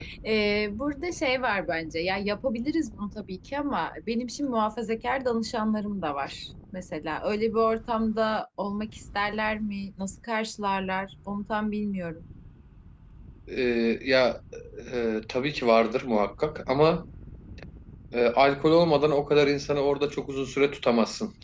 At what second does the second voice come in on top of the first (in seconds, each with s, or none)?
none